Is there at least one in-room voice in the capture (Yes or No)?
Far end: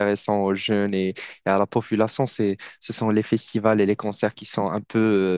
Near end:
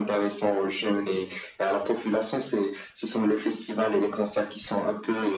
No